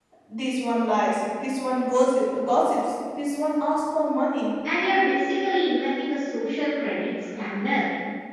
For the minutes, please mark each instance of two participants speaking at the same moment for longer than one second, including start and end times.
none

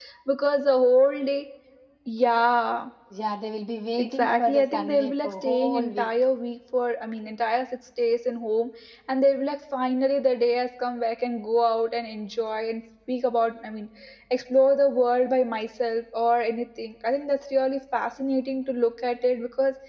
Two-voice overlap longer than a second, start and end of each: 4.0-6.1

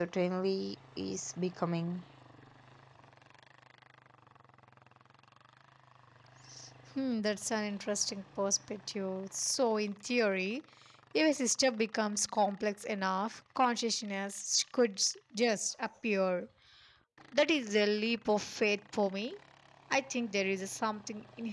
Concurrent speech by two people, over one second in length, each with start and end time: none

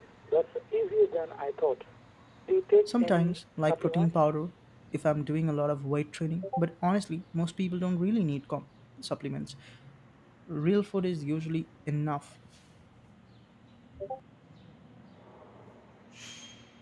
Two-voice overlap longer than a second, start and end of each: 2.9-4.3

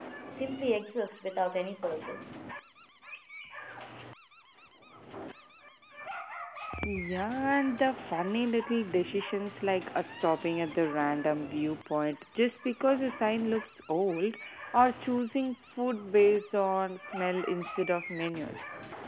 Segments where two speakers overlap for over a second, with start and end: none

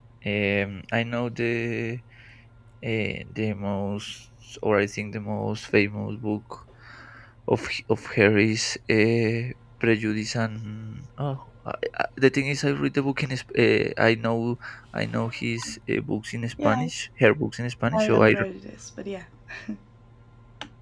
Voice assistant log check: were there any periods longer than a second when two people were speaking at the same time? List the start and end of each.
none

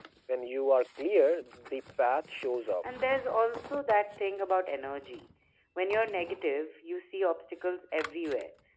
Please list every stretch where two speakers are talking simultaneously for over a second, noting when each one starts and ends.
none

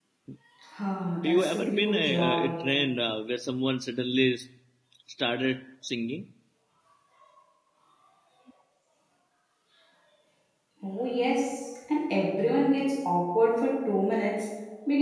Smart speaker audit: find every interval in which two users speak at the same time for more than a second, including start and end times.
1.2-2.6

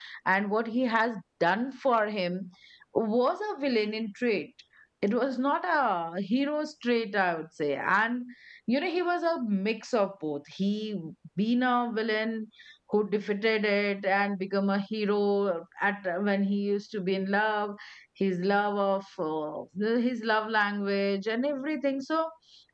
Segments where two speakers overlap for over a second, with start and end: none

